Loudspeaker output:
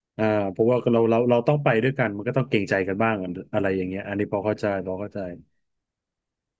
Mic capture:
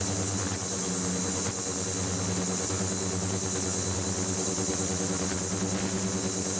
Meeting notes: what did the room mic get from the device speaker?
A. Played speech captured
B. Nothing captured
B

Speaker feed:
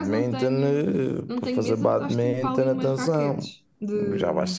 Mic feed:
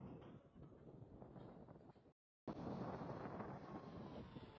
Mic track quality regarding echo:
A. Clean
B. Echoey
A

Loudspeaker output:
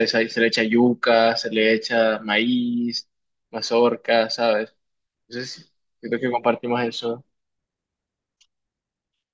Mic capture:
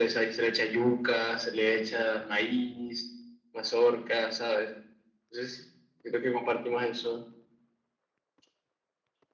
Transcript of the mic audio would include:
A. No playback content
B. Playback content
B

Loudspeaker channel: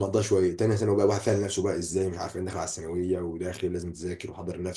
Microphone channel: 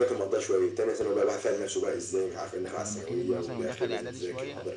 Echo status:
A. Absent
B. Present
B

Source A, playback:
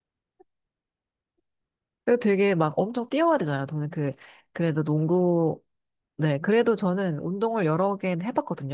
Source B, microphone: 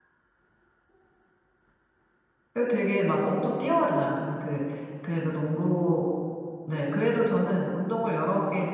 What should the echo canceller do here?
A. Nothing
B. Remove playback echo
B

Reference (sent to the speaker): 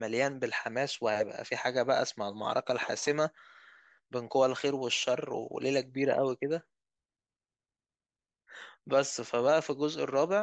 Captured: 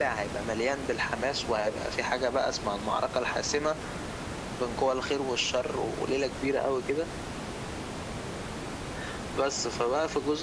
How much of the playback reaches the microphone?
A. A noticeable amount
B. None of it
A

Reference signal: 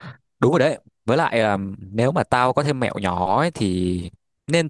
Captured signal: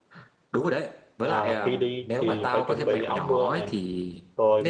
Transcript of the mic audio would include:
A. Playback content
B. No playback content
A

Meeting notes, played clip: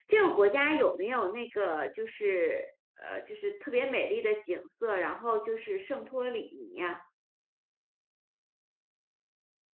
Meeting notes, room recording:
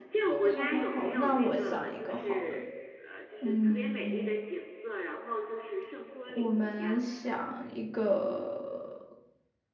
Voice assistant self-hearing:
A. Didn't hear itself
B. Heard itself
B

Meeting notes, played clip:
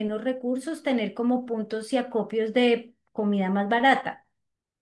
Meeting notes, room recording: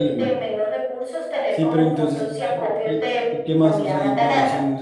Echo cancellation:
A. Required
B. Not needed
A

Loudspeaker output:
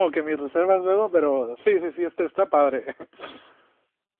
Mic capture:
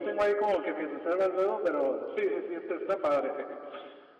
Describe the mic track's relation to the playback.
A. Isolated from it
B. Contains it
B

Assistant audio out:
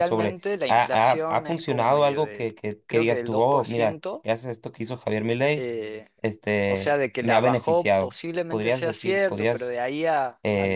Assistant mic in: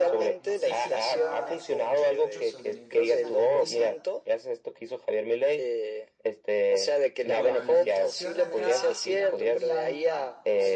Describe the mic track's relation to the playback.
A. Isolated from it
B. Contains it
B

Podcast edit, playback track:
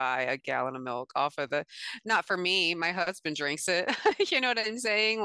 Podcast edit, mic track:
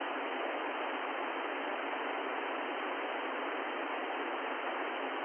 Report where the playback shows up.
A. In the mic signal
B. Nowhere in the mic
B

